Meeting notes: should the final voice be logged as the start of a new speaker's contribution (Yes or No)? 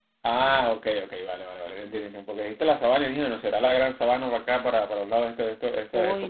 Yes